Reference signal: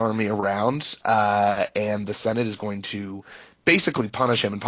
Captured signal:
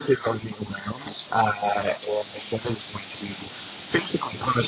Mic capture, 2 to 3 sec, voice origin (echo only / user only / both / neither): echo only